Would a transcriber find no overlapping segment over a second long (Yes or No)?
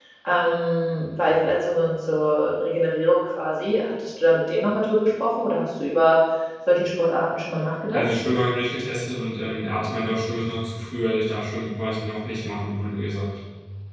Yes